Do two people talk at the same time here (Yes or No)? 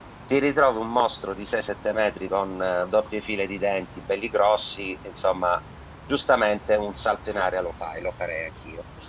No